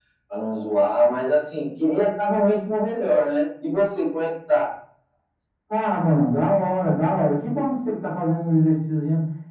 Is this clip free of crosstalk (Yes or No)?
Yes